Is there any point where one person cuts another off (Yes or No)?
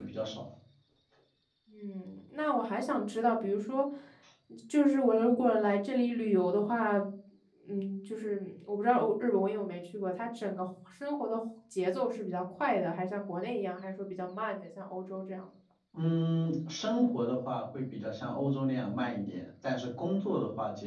No